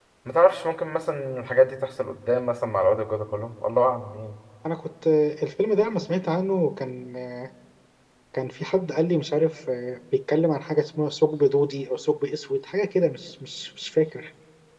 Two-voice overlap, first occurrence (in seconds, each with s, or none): none